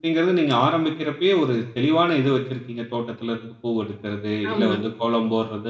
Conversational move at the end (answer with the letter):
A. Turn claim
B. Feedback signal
B